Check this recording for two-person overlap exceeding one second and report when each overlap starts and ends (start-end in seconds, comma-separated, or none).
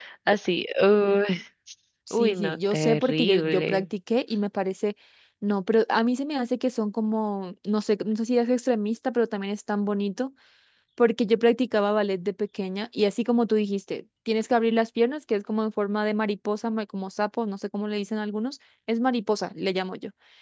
2.1-3.8